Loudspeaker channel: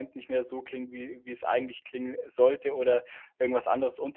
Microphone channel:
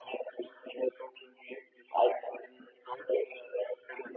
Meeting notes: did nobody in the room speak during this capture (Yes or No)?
Yes